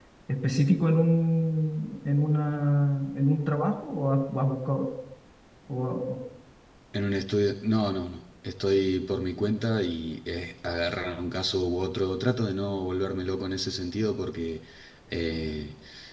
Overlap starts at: none

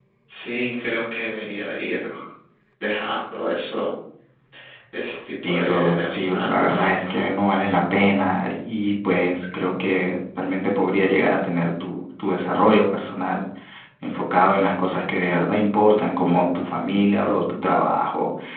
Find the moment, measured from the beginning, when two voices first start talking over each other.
5 s

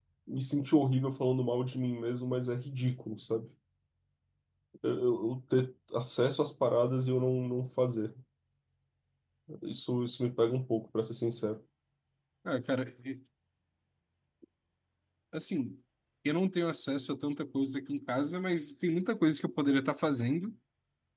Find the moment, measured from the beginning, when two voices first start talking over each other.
none

